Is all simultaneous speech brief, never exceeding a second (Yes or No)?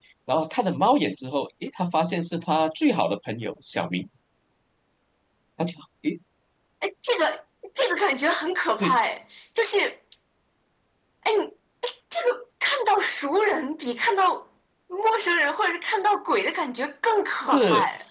Yes